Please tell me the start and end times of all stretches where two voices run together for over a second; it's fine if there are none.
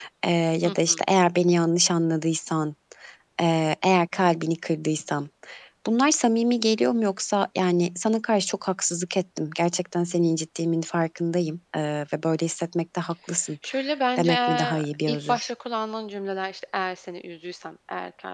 14.2-15.5

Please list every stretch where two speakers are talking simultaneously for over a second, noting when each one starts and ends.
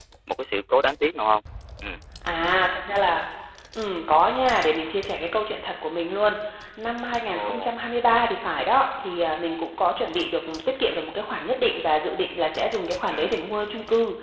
none

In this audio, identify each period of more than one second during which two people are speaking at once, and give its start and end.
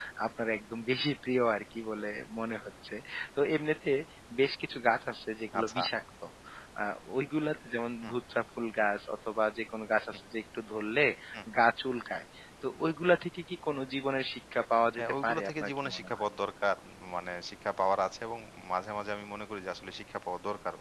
15.0-16.2

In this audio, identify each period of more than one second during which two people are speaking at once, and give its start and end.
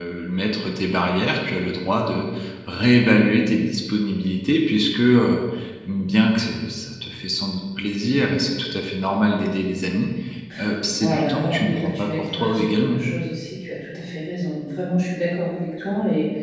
11.0-13.0

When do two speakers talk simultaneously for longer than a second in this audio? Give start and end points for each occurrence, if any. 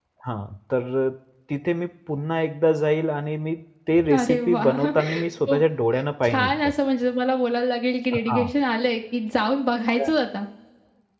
4.1-5.6

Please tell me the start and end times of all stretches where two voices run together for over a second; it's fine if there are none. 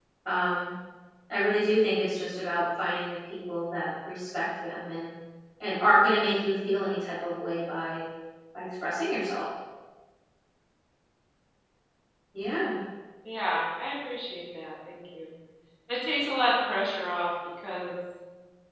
none

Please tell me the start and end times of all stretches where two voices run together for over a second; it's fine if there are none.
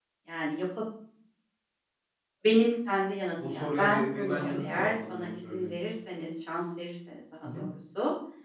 3.4-5.7

